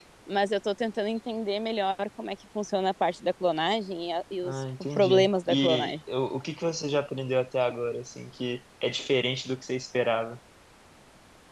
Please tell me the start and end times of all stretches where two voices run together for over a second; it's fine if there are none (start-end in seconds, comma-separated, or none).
4.4-6.0